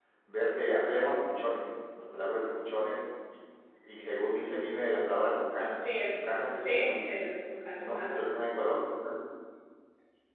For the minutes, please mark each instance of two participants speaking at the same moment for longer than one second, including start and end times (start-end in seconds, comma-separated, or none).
5.8-7.3